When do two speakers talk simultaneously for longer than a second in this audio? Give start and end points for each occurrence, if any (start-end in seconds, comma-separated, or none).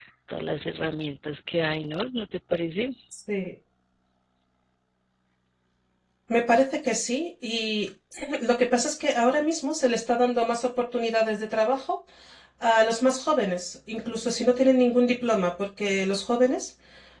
none